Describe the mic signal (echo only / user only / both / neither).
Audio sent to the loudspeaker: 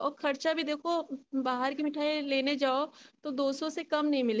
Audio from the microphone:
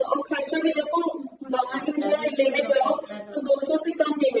both